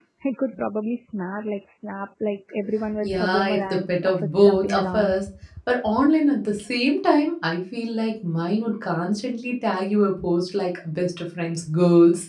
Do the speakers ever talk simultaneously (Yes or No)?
Yes